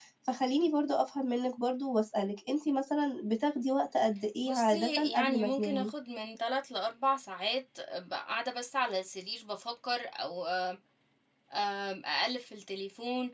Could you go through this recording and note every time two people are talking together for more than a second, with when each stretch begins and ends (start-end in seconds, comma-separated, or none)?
4.4-5.9